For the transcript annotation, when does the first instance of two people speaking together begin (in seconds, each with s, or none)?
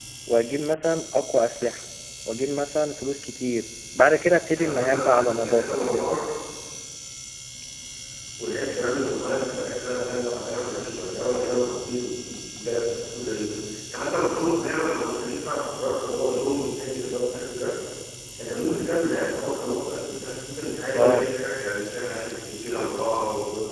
4.5 s